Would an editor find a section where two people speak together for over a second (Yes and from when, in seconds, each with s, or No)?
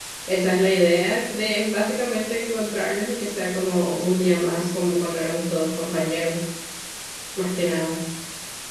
No